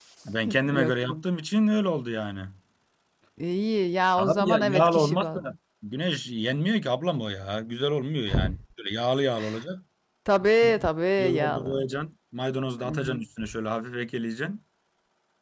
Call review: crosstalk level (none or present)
present